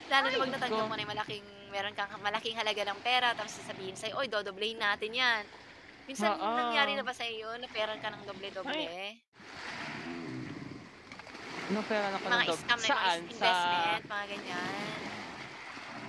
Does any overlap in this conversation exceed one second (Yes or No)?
Yes